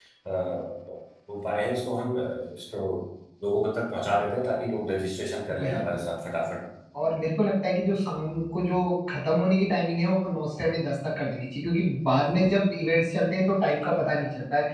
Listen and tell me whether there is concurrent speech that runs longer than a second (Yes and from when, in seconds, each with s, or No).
No